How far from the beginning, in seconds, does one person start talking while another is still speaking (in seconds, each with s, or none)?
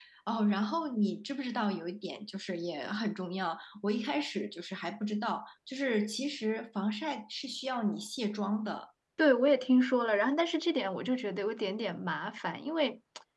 none